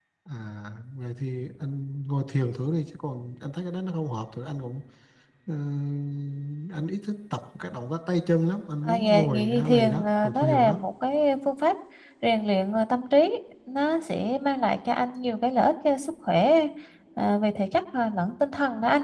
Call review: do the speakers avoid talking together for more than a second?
No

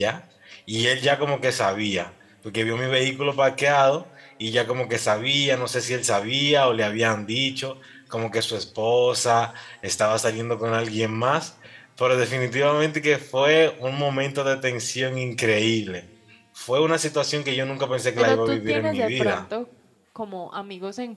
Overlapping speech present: Yes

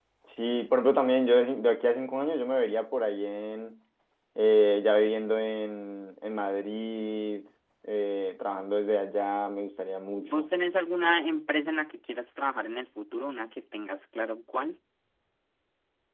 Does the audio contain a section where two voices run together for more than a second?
No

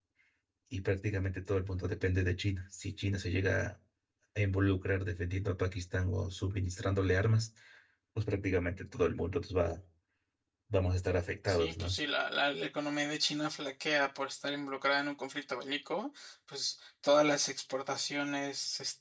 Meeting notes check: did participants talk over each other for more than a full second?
No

